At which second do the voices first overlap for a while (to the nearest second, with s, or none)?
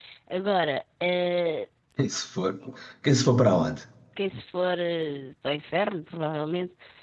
none